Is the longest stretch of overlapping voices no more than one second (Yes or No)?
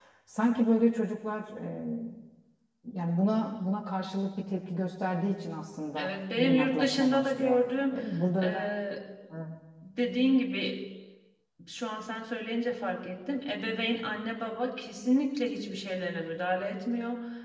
No